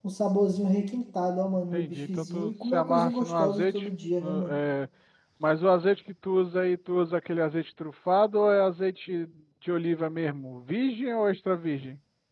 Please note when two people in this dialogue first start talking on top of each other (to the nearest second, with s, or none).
2 s